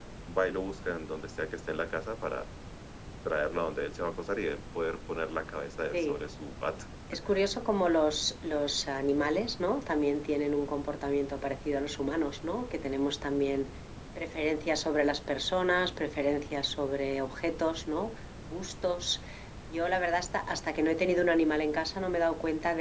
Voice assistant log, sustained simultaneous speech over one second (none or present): none